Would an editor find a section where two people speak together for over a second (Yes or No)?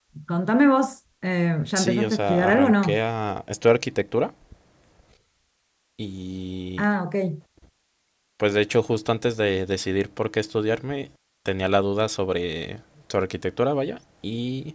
Yes